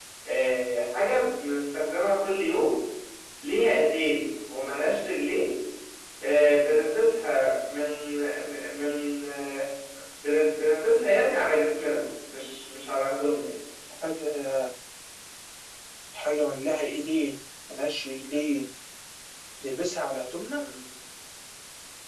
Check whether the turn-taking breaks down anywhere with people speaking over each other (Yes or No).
No